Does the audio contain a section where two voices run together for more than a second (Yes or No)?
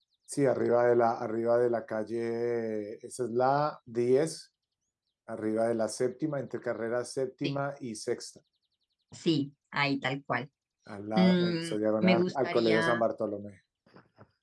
Yes